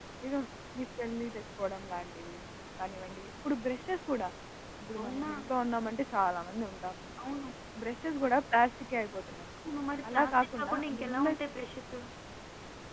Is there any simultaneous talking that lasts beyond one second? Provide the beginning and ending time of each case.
10.1-11.4

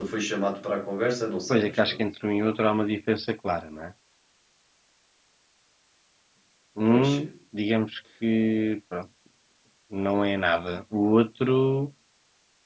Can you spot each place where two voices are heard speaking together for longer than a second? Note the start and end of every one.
none

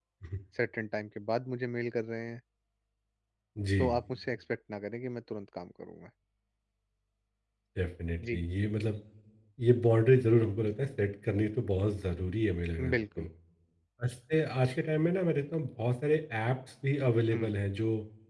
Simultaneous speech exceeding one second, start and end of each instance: none

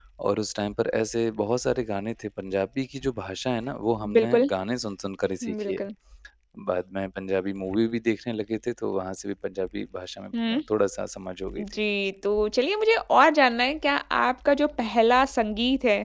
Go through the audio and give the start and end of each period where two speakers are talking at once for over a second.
none

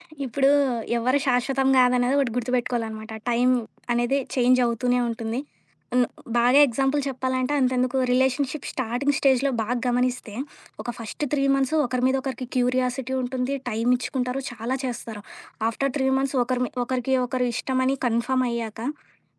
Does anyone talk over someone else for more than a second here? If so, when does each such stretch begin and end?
none

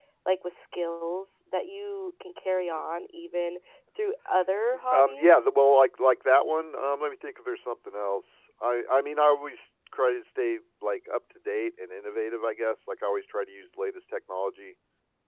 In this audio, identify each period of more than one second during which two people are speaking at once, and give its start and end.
none

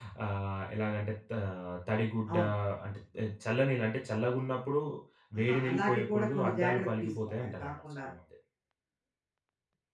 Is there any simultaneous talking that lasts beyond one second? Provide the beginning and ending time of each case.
5.4-8.1

